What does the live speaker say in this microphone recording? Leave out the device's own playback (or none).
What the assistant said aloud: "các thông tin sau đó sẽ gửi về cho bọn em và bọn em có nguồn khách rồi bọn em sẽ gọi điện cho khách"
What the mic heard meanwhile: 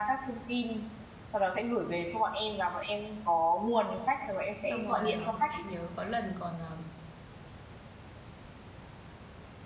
xong rồi ờ, chị nhớ có lần còn ờ,